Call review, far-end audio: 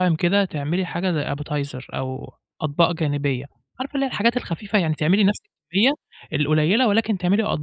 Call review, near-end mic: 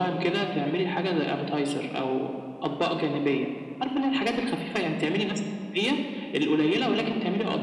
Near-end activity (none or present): none